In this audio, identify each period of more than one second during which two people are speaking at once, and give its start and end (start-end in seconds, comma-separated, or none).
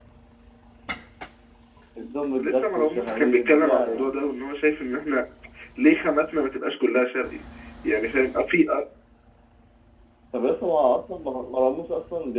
2.4-4.1